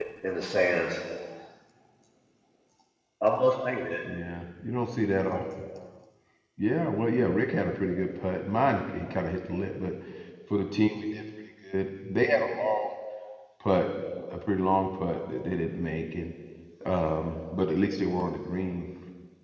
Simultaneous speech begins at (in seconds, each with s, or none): none